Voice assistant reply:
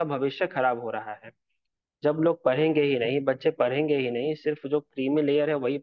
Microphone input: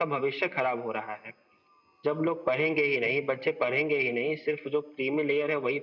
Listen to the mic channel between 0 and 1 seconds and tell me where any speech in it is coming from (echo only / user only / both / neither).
echo only